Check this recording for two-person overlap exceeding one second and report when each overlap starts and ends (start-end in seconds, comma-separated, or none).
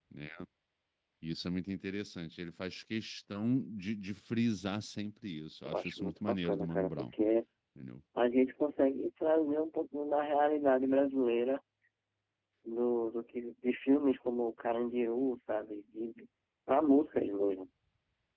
5.7-7.1